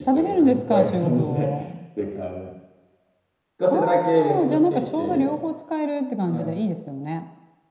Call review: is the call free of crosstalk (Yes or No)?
No